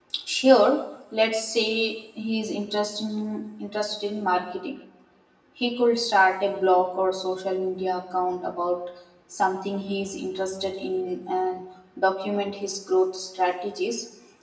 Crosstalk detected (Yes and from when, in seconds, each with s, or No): No